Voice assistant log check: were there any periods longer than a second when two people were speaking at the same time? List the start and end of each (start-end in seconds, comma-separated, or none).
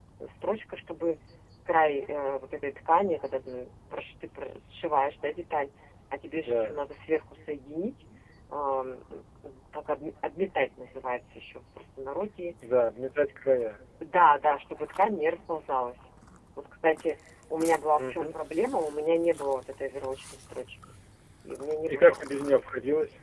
none